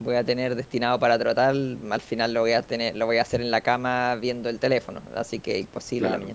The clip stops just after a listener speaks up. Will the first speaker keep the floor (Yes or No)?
No